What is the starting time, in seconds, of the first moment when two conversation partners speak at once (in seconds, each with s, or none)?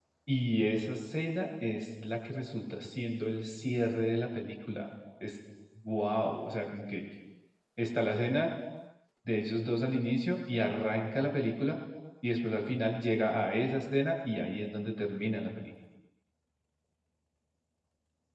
none